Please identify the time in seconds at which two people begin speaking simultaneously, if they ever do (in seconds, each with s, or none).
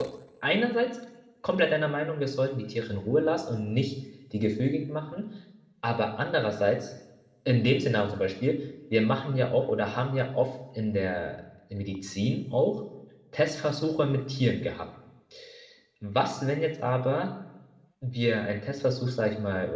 none